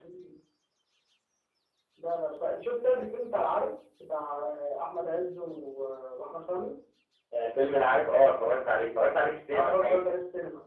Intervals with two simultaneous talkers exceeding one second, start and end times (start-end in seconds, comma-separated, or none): none